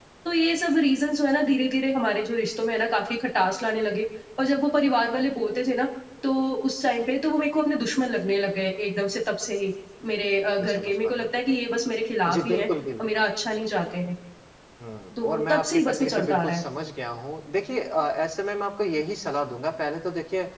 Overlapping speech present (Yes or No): Yes